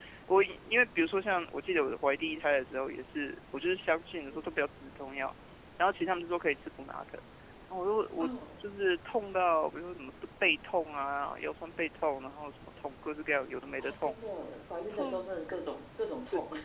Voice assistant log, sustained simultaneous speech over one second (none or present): none